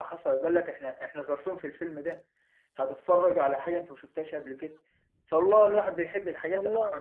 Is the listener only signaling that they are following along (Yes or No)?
Yes